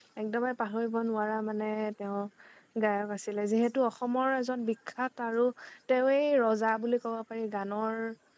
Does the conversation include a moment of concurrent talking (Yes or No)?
No